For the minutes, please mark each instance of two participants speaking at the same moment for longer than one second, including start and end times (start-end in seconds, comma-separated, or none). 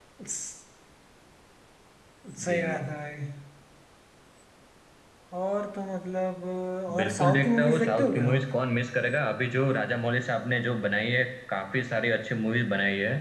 7.0-8.4